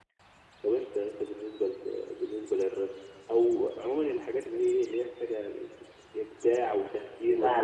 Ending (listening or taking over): taking over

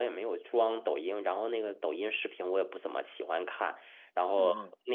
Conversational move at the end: listening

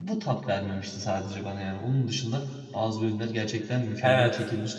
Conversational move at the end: taking over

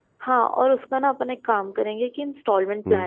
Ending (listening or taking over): listening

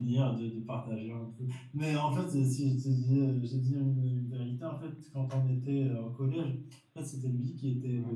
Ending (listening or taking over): listening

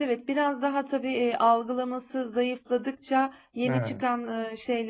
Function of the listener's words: listening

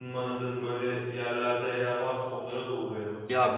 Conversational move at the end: taking over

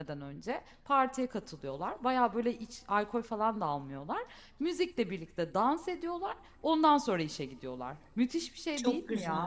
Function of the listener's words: taking over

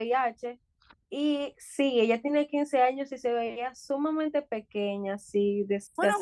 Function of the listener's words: taking over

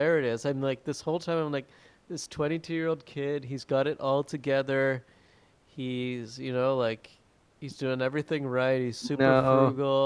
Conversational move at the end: listening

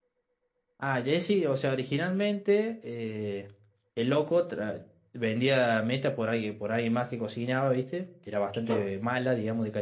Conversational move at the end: listening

